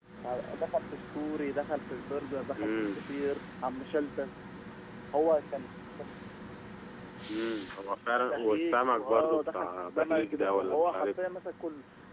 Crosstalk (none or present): present